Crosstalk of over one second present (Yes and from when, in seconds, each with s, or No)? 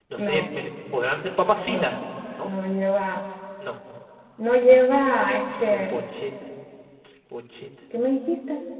No